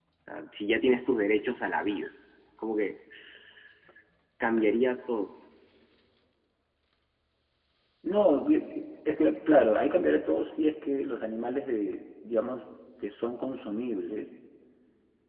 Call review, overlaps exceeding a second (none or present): none